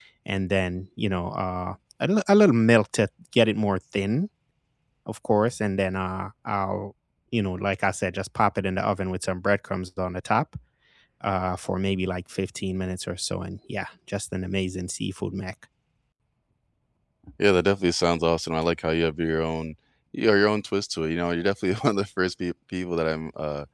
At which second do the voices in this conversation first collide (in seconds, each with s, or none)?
none